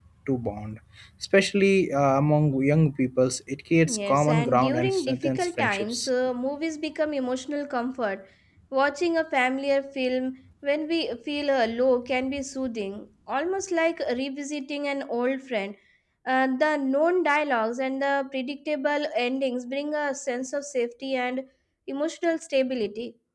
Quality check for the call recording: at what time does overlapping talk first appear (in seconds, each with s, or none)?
3.8 s